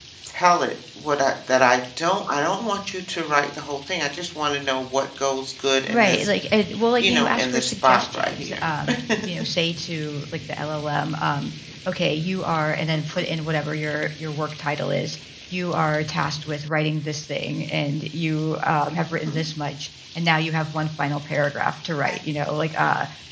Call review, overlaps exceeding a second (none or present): present